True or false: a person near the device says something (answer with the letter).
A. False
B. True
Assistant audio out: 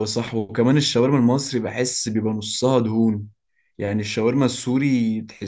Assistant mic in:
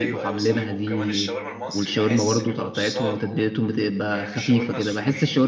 B